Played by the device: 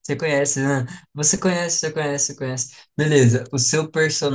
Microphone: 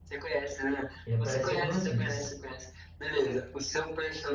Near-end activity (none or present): present